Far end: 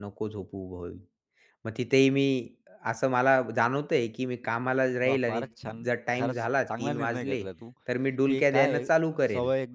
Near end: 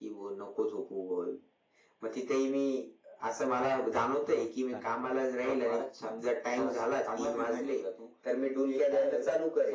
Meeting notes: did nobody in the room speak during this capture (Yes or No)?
No